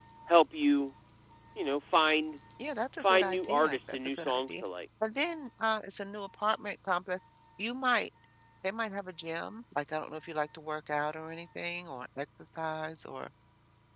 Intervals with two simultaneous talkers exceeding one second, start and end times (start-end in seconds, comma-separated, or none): 3.0-4.6